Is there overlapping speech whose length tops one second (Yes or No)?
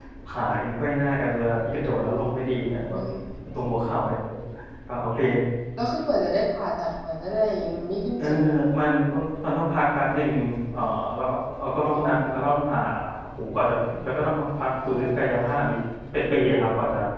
No